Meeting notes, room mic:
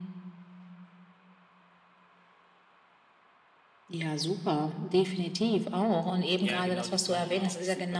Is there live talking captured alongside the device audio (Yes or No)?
Yes